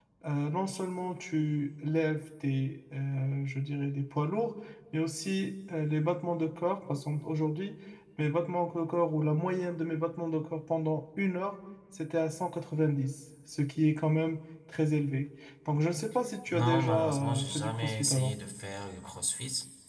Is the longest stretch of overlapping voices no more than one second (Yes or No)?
No